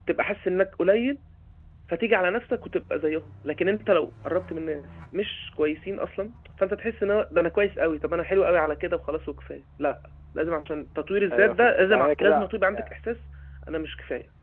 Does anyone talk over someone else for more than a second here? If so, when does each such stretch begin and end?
11.3-12.8

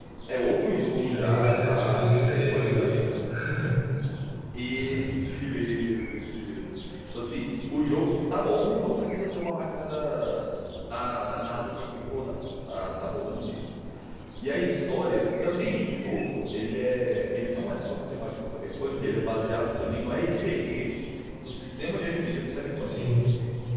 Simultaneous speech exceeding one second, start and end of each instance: 1.0-3.1

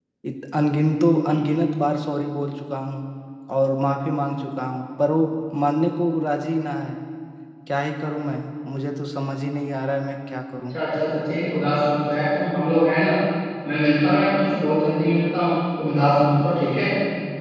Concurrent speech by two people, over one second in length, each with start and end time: none

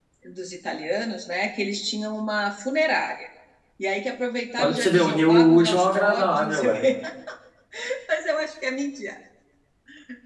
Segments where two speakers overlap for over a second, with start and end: 4.6-6.9

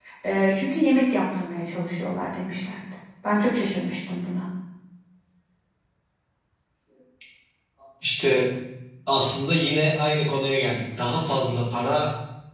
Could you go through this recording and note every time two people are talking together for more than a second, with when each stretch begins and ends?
none

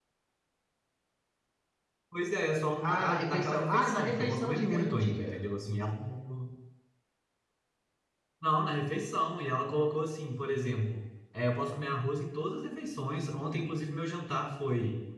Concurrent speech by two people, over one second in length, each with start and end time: 2.8-5.5

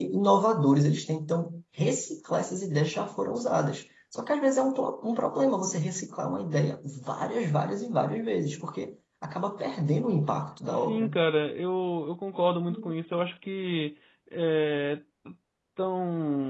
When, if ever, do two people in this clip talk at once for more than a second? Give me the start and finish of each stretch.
none

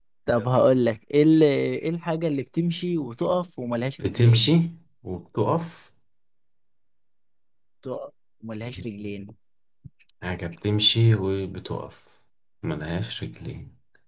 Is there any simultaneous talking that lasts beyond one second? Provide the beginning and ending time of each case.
none

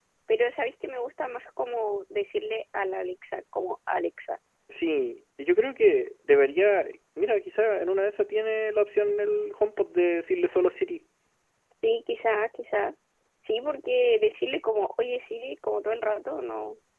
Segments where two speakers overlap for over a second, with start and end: none

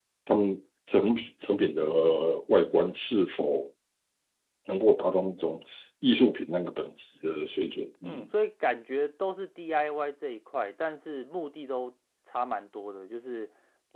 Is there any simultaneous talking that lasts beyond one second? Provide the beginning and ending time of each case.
none

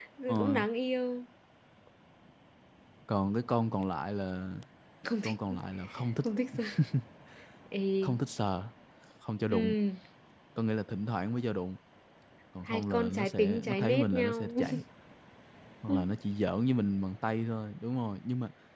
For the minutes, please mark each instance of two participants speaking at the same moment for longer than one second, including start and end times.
12.7-14.5

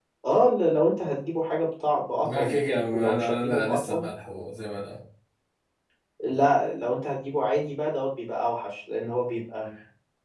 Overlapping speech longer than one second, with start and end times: 2.2-4.0

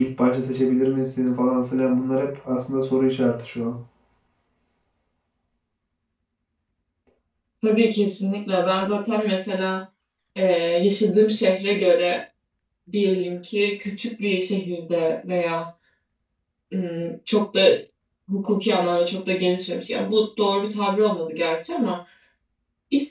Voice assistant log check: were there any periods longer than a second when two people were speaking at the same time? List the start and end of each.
none

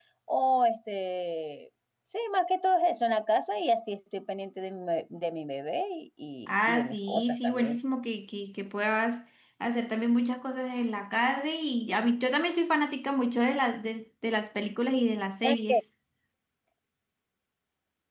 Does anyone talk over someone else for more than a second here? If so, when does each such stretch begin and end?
6.5-7.8

